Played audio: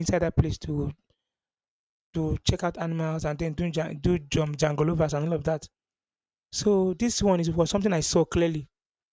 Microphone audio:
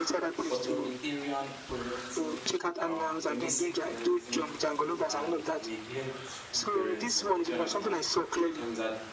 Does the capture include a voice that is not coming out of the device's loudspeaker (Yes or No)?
Yes